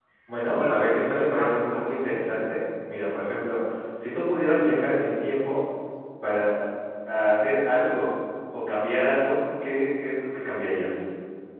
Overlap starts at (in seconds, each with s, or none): 0.5 s